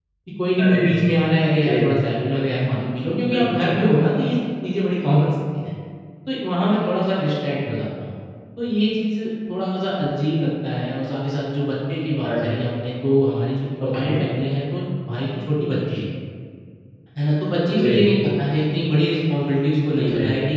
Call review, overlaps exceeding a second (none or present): none